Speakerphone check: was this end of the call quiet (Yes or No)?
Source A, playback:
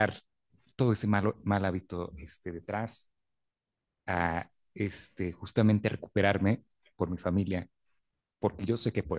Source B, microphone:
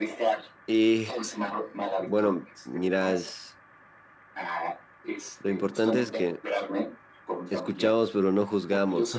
No